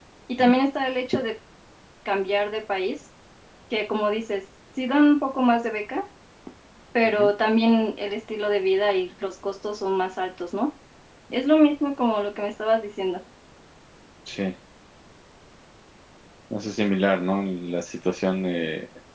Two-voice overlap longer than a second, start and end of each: none

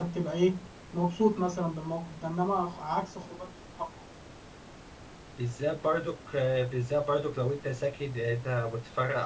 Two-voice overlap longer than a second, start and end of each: none

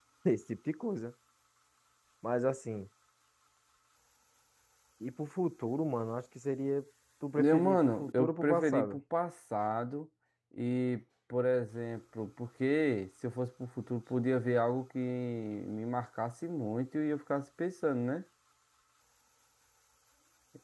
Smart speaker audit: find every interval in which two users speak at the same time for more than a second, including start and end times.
7.4-9.0

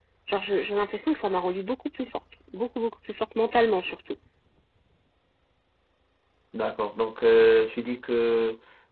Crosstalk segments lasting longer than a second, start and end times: none

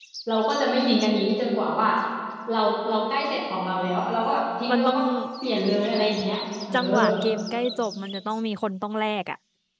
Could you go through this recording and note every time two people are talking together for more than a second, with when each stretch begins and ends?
none

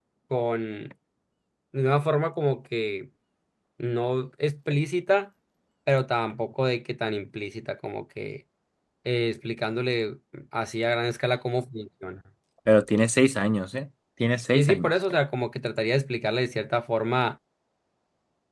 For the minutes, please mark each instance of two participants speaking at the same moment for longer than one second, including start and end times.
none

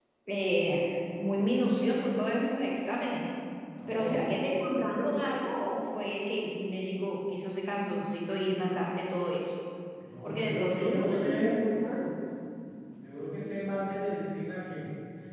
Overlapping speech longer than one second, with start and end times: 10.2-11.5

